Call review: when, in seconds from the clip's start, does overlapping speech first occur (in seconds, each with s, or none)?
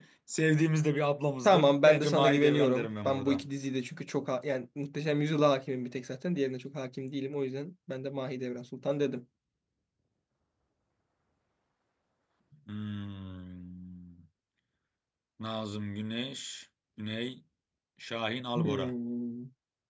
1.4 s